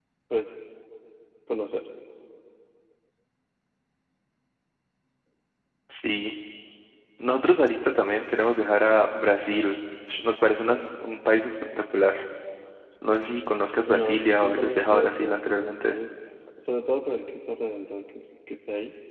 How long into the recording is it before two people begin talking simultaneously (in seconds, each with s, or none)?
13.9 s